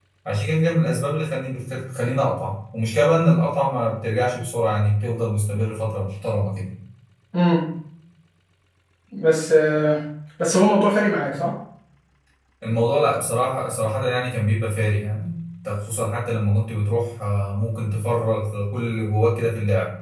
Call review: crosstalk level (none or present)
none